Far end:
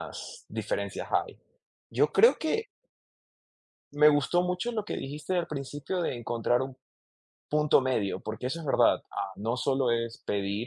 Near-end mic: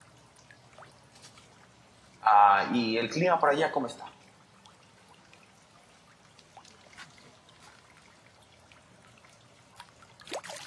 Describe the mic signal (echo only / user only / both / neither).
user only